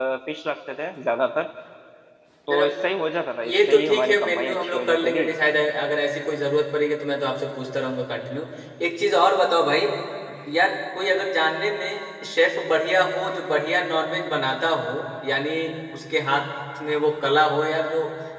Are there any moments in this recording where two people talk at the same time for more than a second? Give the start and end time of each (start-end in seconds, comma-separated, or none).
3.5-5.3